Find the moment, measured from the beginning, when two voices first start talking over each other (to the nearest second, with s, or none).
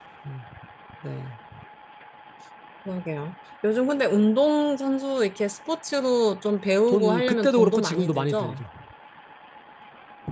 7 s